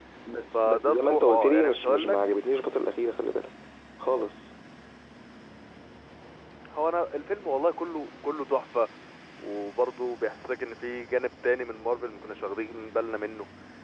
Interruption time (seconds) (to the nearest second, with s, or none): 1 s